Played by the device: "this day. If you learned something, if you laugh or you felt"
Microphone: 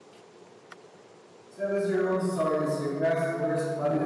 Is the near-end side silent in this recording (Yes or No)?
No